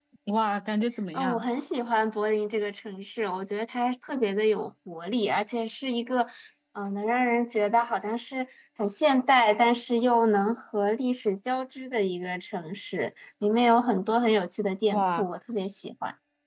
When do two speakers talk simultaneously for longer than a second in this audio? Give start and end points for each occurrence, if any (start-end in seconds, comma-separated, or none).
none